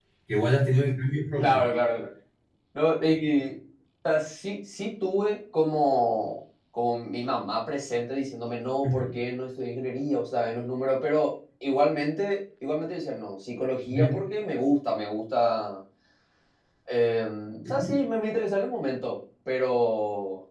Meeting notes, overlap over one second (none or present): none